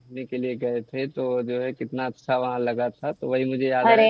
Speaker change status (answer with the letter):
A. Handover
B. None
B